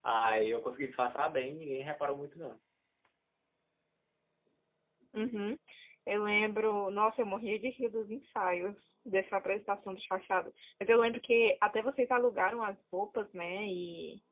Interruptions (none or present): none